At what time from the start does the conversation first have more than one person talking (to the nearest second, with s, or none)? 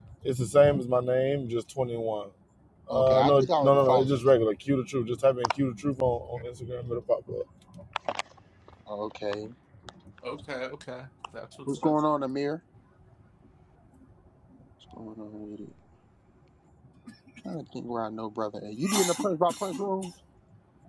3 s